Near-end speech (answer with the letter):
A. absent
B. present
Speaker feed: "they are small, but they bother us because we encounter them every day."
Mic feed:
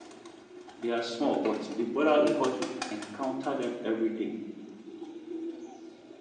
B